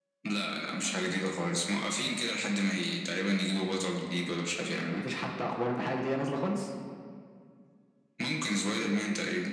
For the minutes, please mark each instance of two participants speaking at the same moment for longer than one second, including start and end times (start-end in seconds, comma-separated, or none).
none